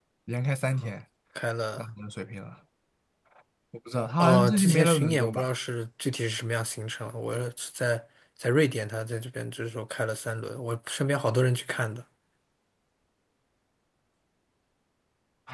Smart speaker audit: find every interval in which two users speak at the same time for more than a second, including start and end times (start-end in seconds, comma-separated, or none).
4.2-5.5